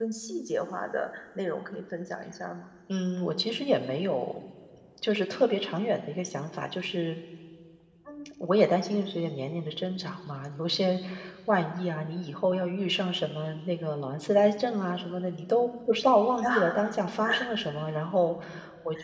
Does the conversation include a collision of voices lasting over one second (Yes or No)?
No